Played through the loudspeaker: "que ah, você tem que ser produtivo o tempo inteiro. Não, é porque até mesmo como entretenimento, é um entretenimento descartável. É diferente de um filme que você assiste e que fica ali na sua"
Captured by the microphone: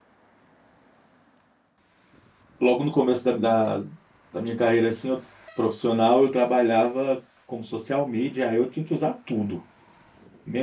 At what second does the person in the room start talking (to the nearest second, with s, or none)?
3 s